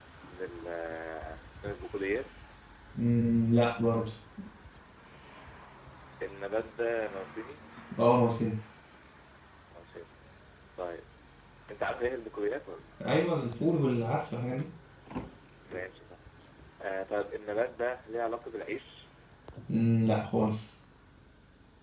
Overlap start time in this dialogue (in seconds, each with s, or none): none